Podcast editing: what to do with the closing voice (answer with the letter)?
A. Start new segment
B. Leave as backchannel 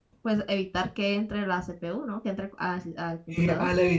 A